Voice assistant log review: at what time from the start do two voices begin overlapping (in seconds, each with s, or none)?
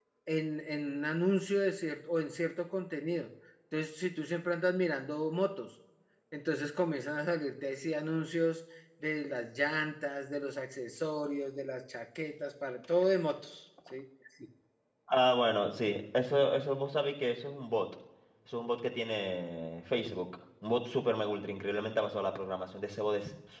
none